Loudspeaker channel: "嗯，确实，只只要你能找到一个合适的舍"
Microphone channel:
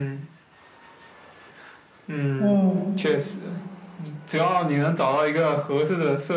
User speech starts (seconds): 2.4 s

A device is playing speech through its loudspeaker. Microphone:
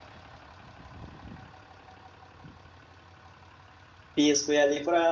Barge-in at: 4.2 s

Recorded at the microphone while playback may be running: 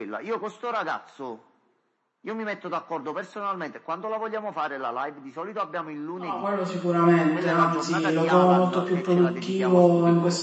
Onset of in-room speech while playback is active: 6.1 s

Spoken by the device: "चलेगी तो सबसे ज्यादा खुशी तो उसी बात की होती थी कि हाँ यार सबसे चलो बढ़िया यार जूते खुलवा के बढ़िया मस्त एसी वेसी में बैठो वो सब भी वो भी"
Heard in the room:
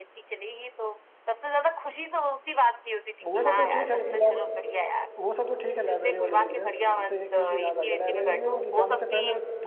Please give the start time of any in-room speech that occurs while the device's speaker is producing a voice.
3.2 s

